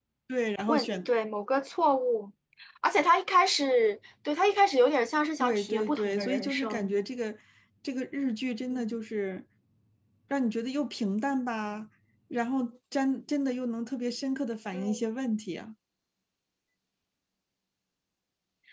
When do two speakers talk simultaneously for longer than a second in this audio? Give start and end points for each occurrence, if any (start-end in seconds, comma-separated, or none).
5.4-6.9